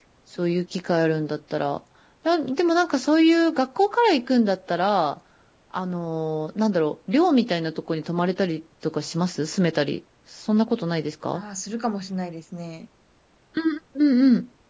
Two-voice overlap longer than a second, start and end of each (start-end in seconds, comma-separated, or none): none